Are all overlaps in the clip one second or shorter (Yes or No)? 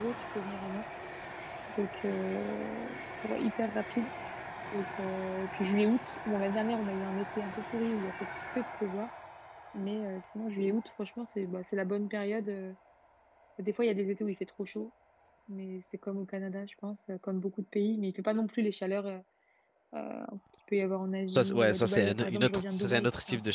No